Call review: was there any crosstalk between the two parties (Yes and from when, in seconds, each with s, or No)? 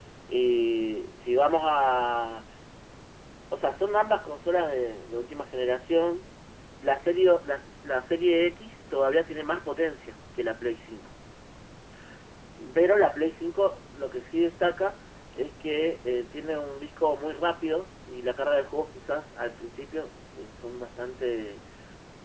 No